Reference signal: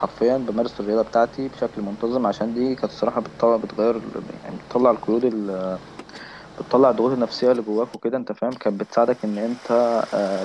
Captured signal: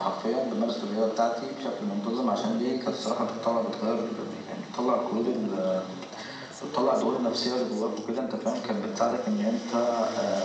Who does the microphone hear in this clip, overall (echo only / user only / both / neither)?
both